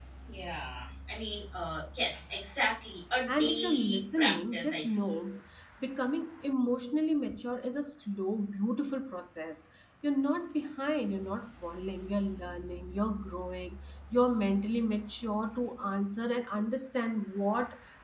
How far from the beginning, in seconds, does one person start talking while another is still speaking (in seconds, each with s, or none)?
3.3 s